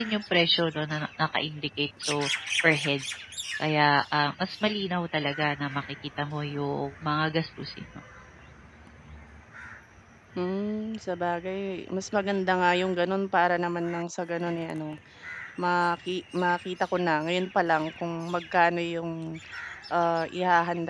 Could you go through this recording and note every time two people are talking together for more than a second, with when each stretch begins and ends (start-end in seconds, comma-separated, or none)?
none